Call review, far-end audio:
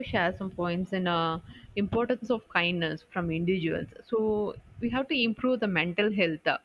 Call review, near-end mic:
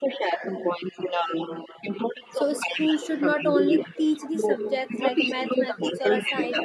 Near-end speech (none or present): present